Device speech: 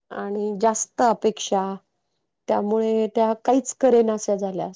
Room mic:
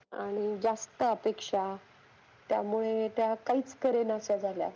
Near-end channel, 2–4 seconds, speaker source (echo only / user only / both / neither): echo only